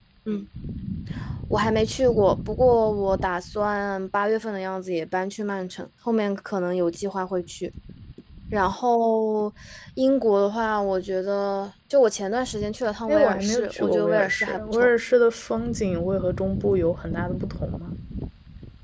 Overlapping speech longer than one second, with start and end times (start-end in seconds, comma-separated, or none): 13.1-14.9